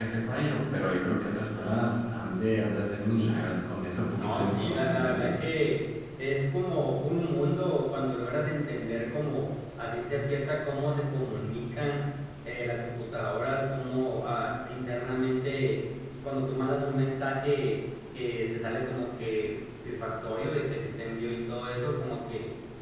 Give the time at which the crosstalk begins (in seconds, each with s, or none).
4.2 s